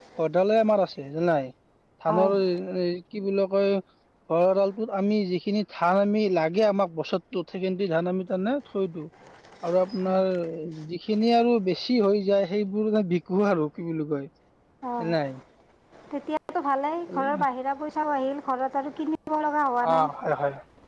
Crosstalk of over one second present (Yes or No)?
No